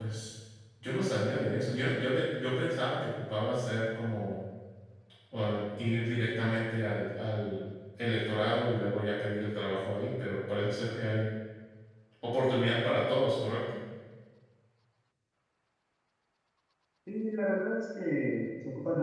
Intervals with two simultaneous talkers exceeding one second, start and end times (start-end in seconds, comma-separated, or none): none